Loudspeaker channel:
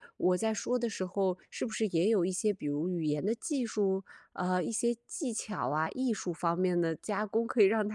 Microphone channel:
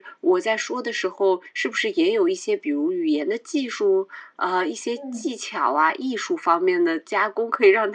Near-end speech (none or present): present